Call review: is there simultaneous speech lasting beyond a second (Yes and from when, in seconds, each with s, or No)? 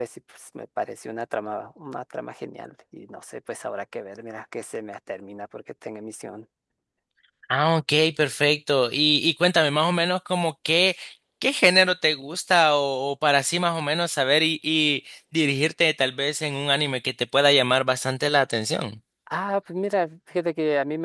No